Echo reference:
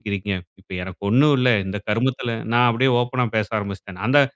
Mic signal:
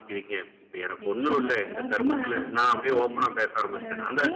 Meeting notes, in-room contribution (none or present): present